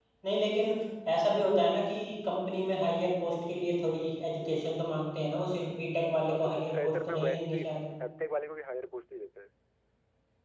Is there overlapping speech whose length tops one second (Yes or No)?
Yes